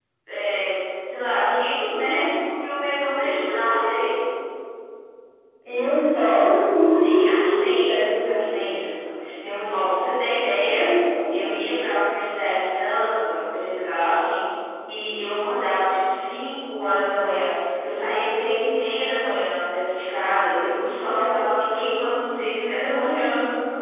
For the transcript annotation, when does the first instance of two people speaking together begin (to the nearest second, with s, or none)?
7 s